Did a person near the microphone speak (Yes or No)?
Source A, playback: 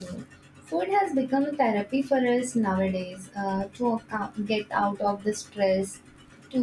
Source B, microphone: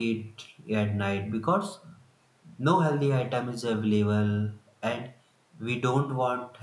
Yes